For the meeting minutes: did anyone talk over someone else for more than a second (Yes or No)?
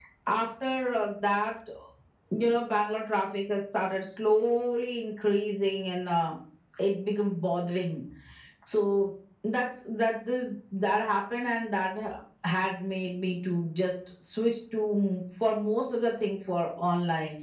No